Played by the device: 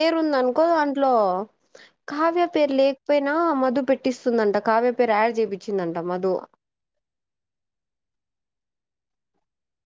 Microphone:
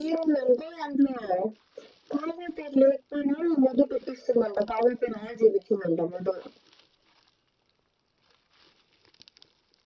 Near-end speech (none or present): none